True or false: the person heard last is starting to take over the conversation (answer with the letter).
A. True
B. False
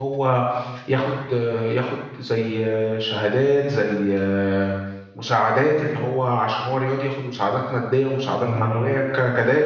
B